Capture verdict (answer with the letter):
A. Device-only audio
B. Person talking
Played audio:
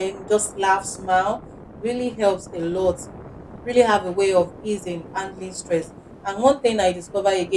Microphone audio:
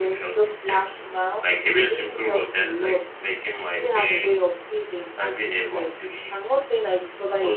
B